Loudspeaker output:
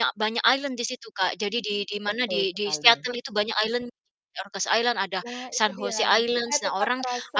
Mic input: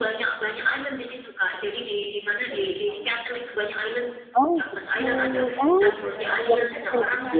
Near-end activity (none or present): present